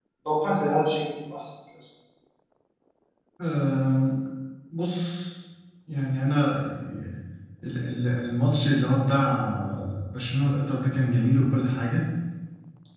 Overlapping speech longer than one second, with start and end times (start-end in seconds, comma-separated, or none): none